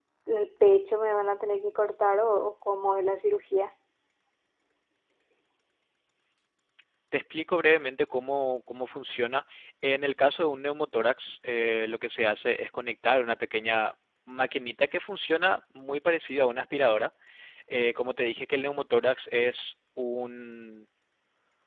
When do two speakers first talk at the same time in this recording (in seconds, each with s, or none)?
none